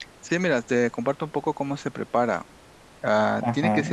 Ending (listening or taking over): listening